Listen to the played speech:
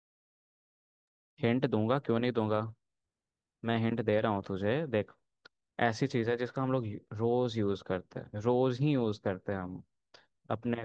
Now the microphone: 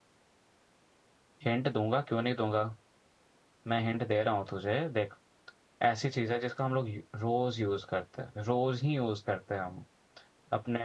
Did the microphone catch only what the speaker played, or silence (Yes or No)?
Yes